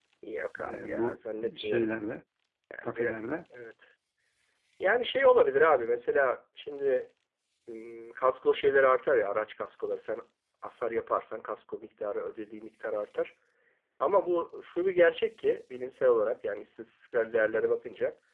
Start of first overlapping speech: 0.6 s

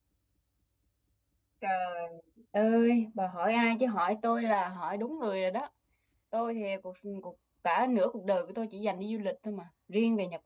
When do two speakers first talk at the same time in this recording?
none

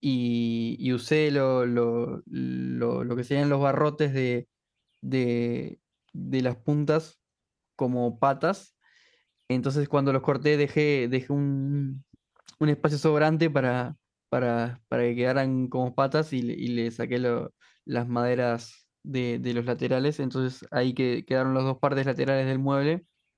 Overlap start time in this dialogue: none

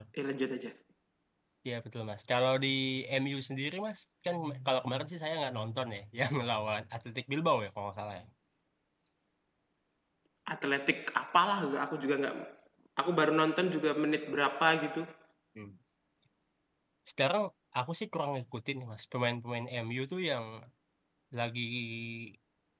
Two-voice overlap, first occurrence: none

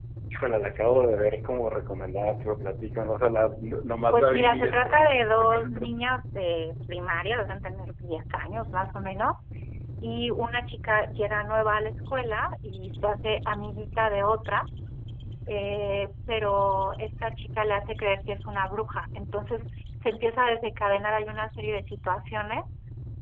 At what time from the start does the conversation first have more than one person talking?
4.1 s

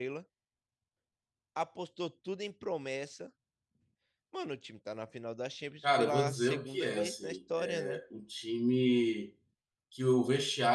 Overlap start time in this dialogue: 5.8 s

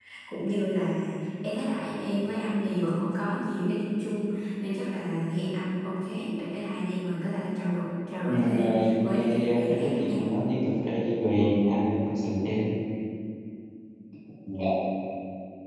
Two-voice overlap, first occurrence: 8.3 s

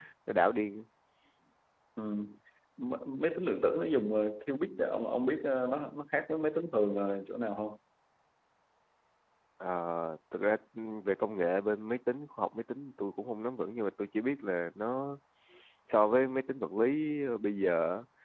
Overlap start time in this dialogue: none

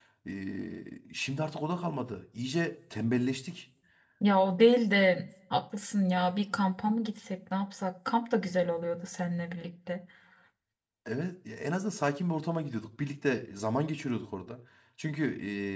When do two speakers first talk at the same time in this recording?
none

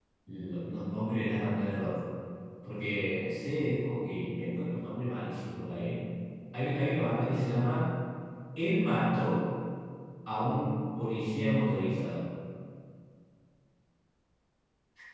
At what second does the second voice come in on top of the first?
none

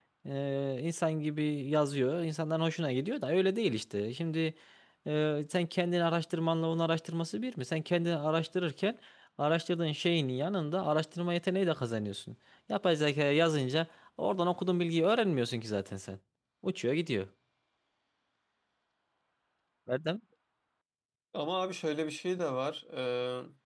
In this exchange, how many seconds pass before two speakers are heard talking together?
none

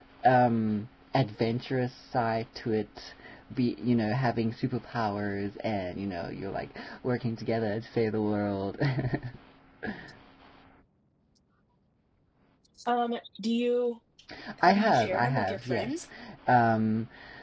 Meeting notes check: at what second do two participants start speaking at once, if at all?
14.7 s

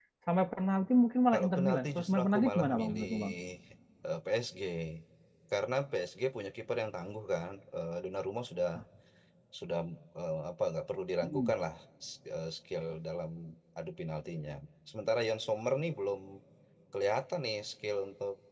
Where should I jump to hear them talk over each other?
1.3 s

